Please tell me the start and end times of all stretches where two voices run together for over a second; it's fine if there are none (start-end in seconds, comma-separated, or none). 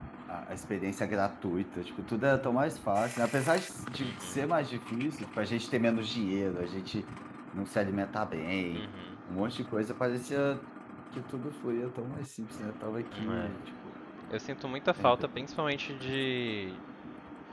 none